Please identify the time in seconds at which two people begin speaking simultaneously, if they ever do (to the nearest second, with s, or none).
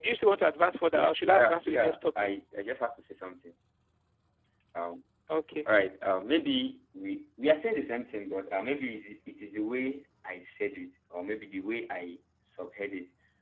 1 s